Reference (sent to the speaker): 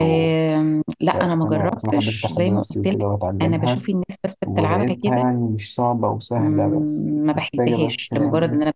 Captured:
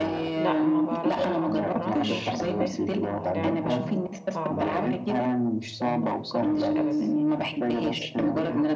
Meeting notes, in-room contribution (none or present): present